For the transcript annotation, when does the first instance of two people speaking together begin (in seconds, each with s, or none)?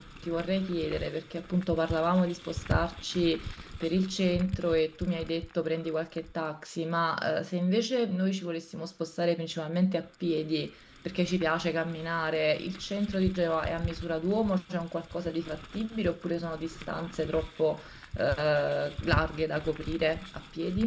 none